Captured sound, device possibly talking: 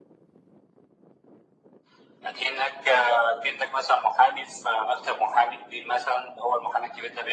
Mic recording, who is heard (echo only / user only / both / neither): echo only